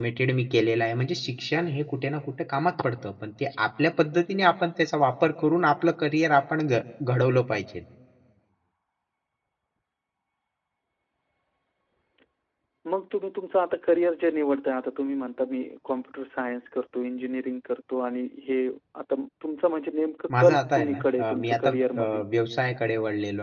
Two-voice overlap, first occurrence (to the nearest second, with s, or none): 20 s